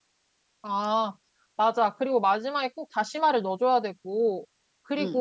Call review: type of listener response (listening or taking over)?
taking over